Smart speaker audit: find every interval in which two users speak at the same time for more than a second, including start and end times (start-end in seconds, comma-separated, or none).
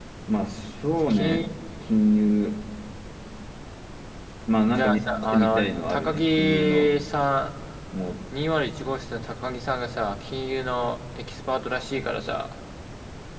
4.7-6.9